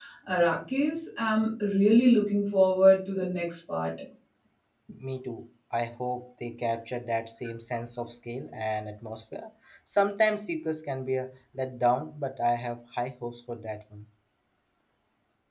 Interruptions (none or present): none